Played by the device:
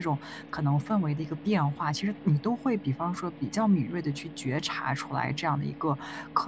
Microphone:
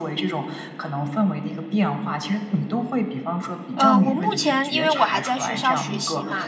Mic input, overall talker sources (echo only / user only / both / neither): both